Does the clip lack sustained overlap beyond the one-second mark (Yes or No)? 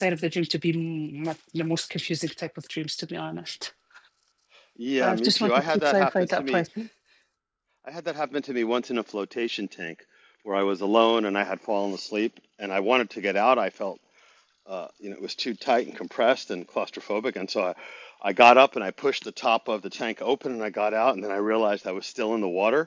No